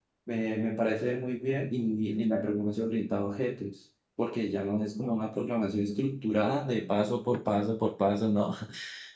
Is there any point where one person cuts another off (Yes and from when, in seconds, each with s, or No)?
No